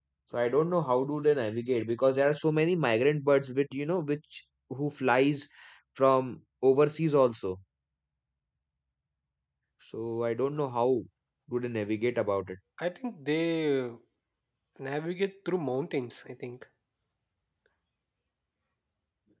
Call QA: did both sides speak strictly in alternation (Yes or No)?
Yes